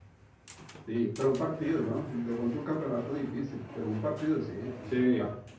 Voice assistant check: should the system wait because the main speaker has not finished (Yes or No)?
No